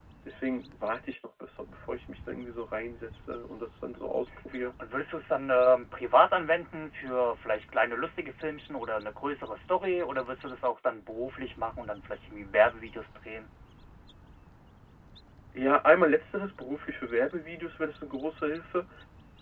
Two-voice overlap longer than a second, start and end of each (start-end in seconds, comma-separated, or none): none